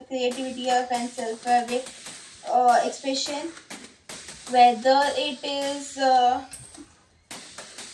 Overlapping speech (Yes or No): No